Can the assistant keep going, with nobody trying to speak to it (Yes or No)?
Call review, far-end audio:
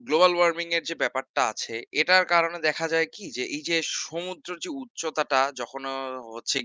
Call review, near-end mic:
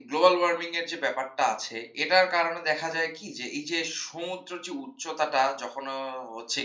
Yes